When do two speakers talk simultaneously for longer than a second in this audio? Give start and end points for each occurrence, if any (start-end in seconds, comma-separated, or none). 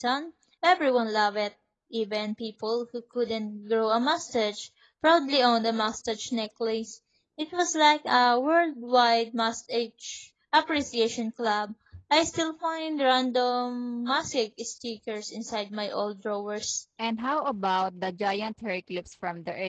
none